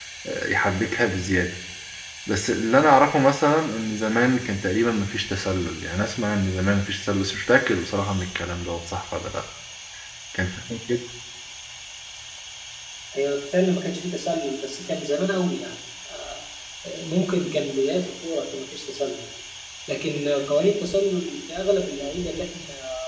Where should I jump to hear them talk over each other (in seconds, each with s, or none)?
none